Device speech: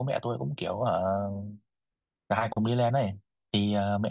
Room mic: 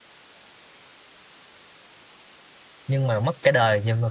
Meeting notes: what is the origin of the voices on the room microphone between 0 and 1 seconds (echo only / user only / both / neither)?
neither